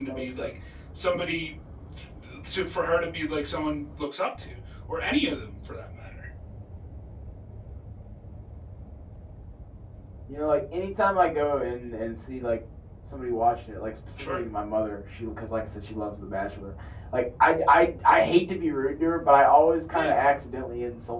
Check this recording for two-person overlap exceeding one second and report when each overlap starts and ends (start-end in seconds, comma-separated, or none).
none